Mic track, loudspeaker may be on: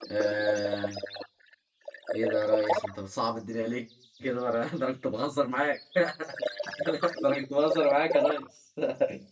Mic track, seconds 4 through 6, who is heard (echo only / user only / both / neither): user only